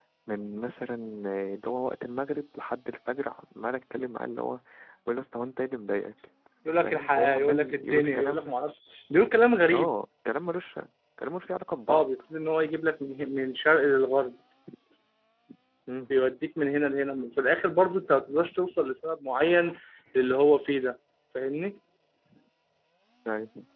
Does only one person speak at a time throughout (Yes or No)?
No